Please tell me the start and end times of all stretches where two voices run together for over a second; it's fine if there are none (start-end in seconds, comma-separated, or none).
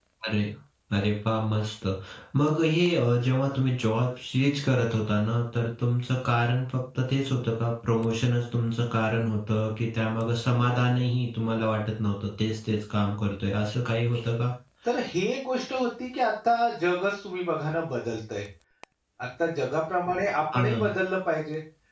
none